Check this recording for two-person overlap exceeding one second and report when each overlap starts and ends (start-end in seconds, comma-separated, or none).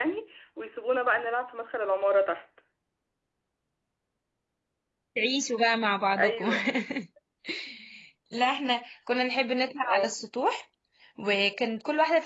none